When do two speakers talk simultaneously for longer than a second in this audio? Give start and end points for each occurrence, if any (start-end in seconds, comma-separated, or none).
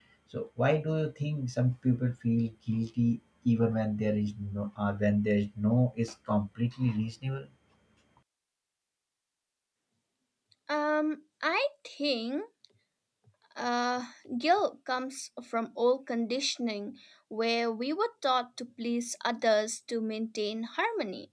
none